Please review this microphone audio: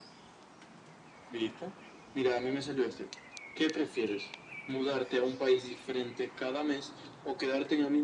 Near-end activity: none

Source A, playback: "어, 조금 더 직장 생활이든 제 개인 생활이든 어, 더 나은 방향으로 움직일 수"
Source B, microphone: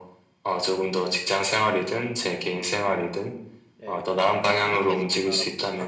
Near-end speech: present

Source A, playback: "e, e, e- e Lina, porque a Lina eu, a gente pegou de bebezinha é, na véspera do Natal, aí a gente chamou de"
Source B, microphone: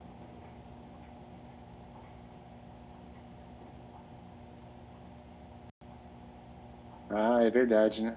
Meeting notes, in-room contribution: present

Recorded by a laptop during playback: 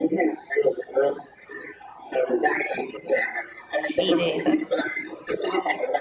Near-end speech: present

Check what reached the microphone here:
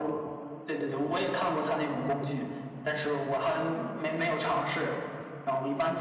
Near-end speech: none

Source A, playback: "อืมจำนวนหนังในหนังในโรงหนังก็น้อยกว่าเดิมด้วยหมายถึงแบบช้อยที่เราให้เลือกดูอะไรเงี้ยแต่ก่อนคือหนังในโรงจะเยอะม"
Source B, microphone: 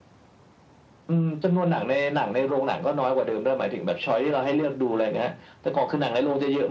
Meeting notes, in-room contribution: none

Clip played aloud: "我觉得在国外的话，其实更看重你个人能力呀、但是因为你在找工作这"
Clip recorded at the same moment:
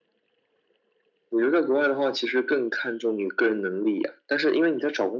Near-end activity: none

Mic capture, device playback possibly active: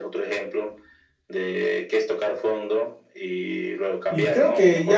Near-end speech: present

